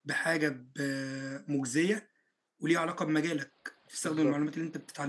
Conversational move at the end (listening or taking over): listening